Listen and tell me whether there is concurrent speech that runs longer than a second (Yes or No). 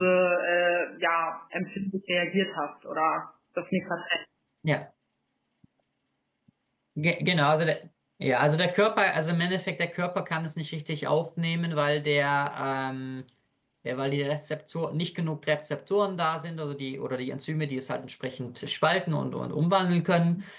No